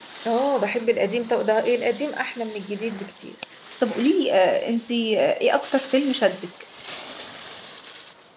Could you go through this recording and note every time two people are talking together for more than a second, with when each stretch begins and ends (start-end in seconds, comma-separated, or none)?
none